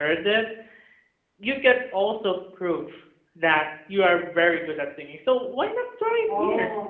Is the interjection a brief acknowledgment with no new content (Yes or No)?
Yes